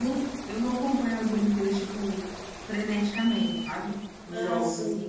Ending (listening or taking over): listening